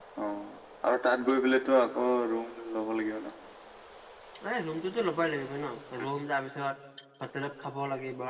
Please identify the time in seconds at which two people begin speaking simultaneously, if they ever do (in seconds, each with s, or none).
none